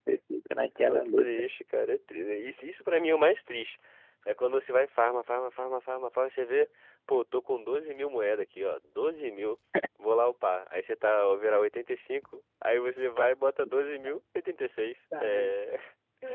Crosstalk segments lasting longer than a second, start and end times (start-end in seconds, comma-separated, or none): none